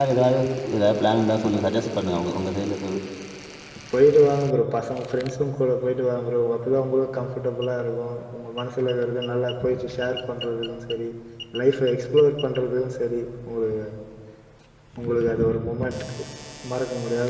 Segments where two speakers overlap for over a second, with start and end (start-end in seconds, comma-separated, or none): none